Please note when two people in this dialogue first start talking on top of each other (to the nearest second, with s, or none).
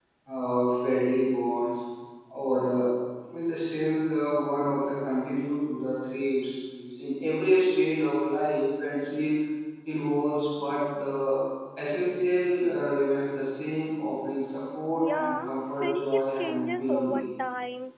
15 s